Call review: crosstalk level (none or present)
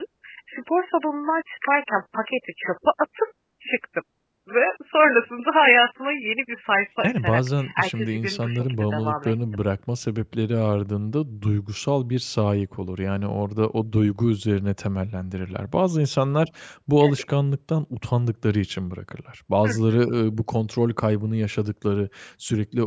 present